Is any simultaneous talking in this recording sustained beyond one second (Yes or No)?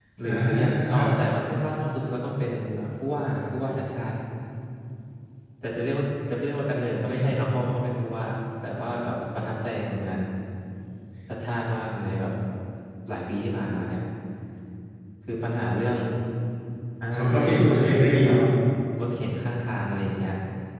Yes